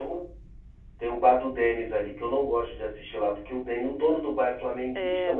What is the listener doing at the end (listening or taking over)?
taking over